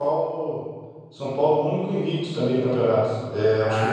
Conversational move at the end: listening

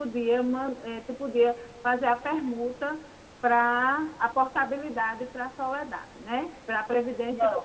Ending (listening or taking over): taking over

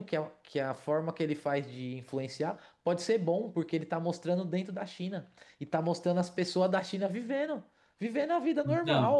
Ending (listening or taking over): listening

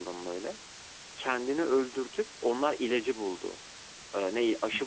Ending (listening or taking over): listening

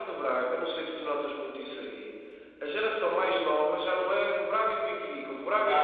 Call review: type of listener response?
taking over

